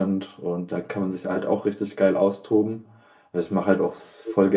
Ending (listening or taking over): listening